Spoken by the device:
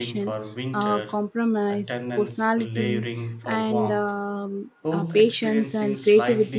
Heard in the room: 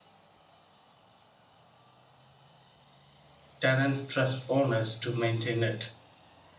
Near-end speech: present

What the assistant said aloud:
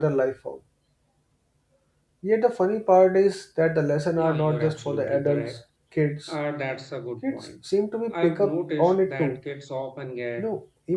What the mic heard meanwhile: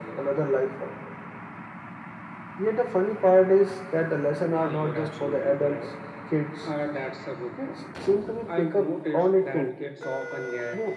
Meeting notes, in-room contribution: none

